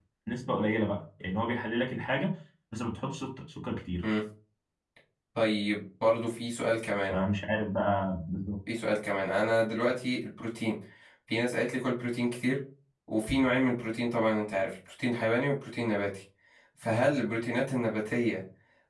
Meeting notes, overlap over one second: none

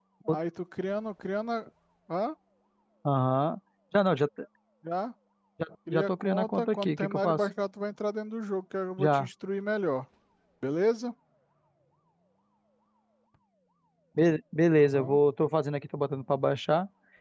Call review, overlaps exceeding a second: present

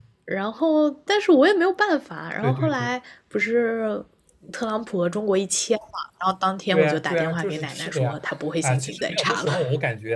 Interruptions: present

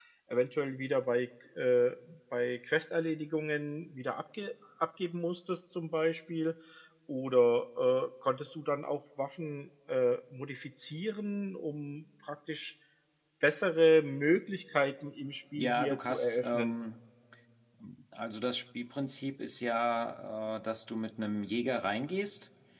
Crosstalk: present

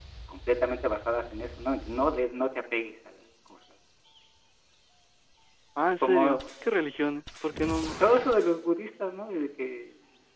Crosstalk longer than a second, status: none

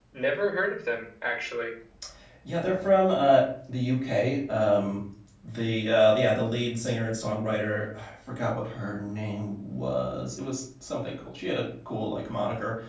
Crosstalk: none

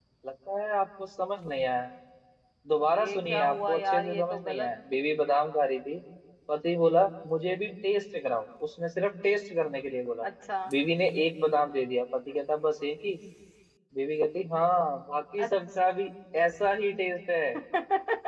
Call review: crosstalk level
present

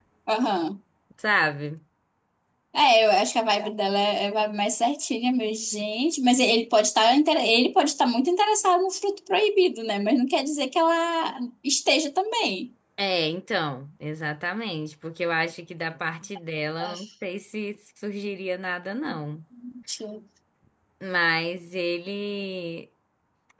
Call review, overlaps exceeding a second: none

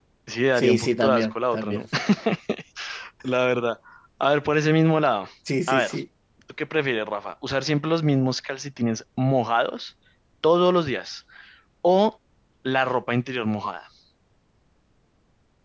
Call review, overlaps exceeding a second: present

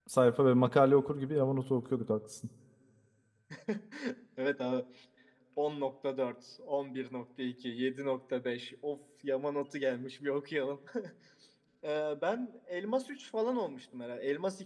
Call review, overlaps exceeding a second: none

